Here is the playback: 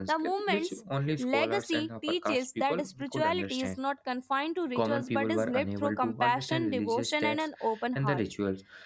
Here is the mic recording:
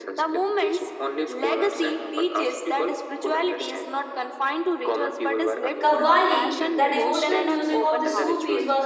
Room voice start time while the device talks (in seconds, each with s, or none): 5.8 s